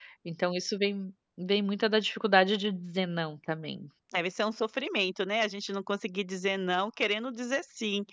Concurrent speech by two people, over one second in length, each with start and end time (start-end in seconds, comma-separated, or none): none